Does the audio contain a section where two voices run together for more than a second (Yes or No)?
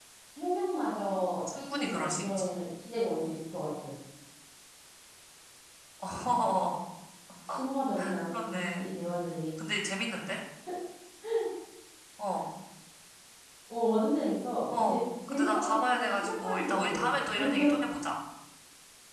Yes